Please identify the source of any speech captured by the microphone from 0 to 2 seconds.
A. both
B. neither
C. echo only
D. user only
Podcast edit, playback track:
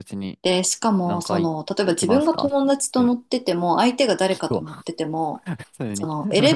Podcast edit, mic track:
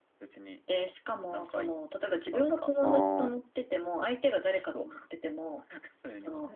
C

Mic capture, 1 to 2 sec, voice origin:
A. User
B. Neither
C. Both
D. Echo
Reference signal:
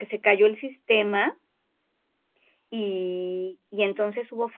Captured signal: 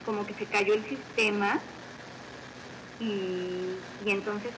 D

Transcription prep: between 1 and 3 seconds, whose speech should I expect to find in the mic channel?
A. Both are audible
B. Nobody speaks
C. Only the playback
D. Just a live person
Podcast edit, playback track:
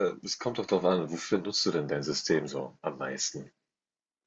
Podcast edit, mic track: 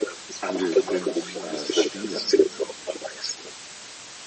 A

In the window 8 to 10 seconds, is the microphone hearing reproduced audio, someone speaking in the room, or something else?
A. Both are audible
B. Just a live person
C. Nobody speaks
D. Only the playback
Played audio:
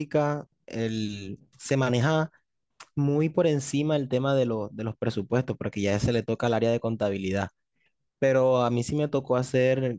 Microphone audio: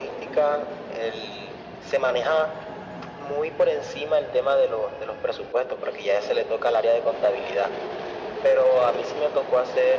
D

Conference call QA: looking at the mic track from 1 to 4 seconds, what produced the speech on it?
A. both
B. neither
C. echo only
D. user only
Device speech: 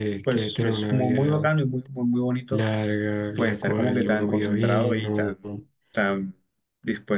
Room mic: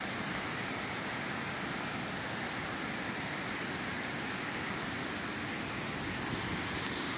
B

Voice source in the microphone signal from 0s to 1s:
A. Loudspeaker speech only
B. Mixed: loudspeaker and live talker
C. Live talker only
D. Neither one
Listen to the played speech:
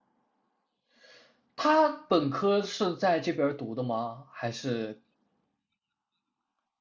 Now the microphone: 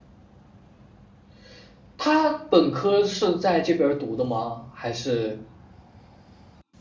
D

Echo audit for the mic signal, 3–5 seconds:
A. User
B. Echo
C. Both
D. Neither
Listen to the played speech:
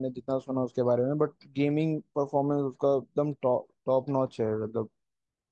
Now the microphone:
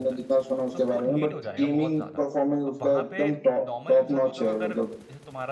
C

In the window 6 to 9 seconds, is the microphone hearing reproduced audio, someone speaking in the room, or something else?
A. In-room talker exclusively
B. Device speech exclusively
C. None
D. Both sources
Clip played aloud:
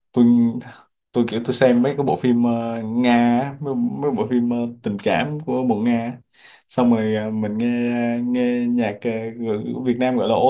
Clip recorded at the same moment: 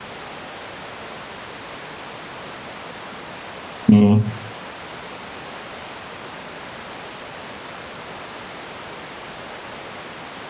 C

